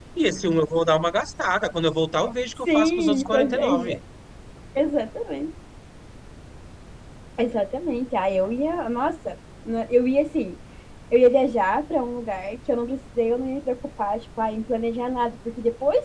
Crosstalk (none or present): present